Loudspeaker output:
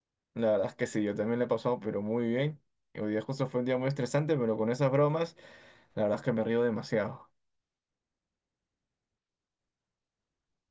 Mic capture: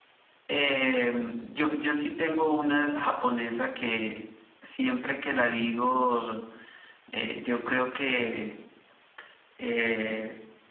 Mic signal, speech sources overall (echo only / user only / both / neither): user only